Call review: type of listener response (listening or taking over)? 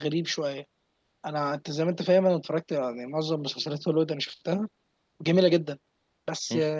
listening